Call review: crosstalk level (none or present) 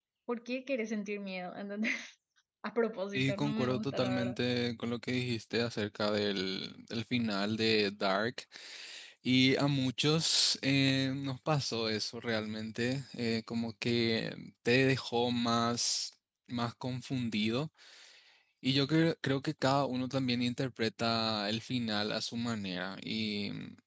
present